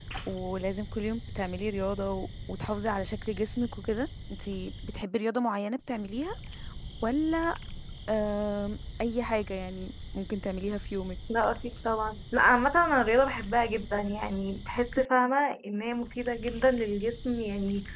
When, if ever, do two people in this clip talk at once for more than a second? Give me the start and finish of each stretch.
none

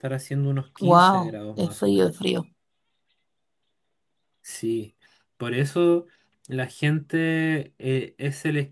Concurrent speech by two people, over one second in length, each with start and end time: 0.8-2.1

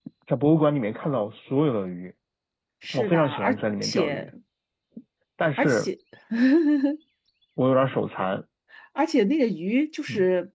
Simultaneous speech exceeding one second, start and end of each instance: 2.9-4.3

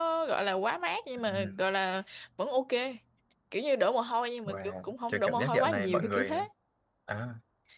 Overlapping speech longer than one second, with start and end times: 4.5-6.5

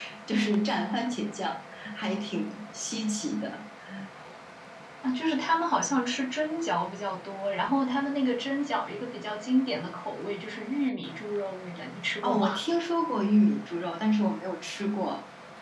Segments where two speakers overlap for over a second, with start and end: none

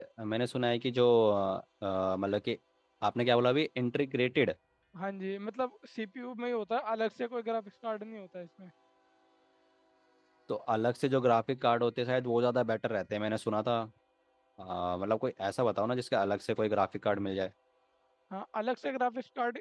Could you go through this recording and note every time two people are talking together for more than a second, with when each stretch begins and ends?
none

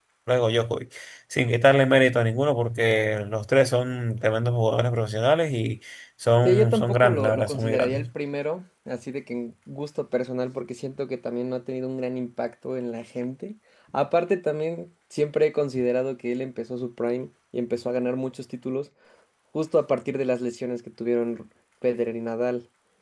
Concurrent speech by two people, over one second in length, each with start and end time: 6.5-8.1

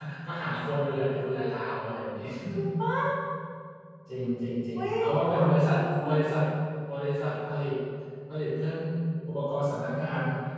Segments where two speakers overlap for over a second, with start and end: 4.8-6.1

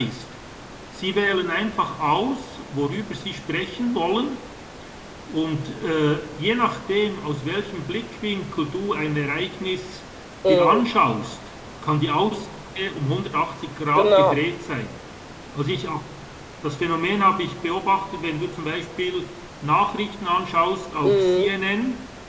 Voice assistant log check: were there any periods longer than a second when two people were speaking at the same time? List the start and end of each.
none

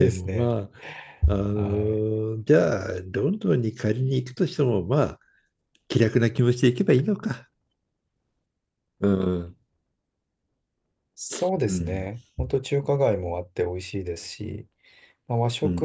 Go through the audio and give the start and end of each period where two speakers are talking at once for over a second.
none

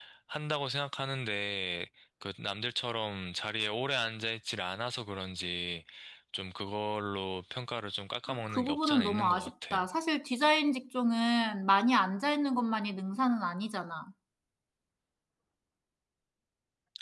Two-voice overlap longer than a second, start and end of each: 8.5-9.8

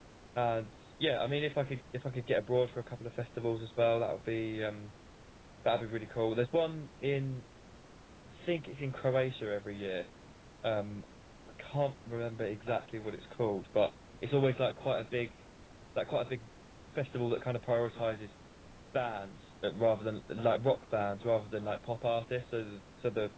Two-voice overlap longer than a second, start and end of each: none

